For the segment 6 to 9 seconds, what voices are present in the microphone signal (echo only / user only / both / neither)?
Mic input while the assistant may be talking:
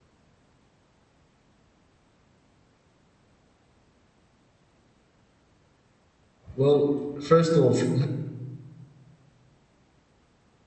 user only